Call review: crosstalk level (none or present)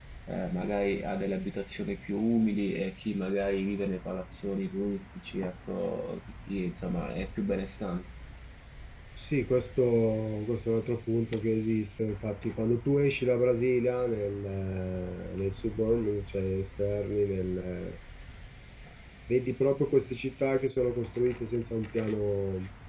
none